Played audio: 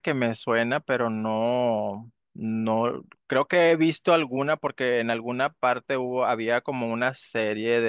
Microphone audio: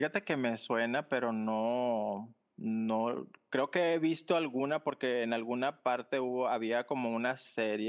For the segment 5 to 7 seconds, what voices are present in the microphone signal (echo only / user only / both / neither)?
echo only